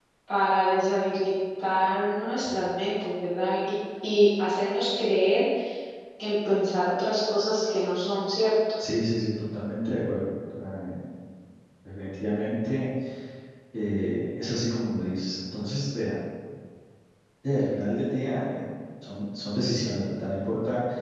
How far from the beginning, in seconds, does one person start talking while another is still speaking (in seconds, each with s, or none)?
none